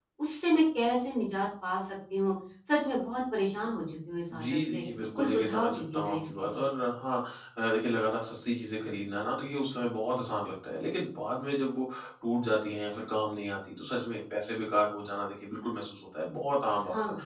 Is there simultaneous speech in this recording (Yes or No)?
Yes